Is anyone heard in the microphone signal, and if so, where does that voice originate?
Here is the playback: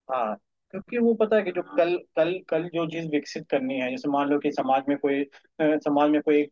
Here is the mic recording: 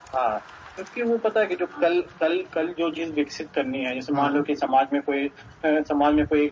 both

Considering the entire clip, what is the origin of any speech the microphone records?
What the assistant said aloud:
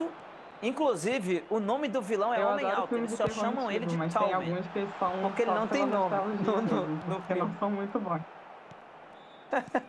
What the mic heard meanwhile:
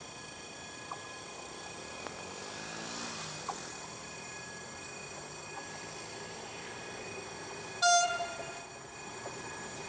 neither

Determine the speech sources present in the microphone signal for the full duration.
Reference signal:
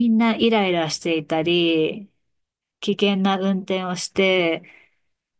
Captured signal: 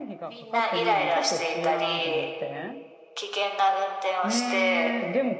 both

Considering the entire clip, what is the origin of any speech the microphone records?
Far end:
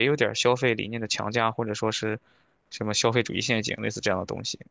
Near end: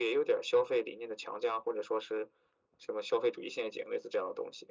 echo only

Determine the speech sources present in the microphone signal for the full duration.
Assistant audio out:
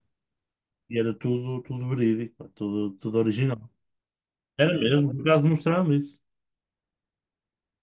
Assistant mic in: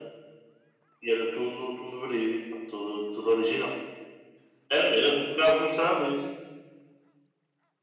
echo only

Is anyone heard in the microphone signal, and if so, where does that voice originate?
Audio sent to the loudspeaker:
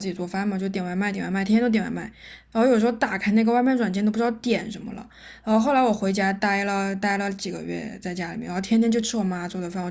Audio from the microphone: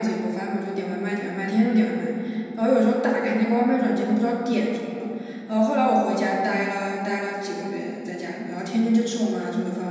echo only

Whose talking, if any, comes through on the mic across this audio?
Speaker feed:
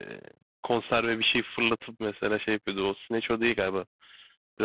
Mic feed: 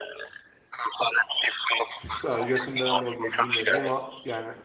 both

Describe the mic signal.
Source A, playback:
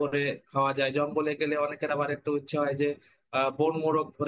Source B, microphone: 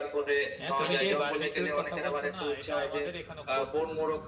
both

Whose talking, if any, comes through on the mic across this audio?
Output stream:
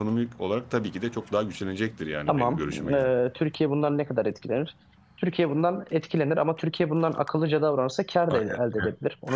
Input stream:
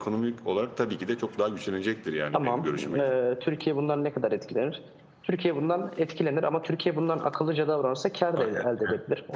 echo only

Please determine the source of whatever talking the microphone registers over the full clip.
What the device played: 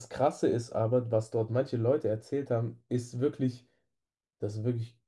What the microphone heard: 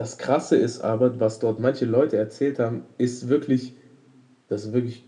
echo only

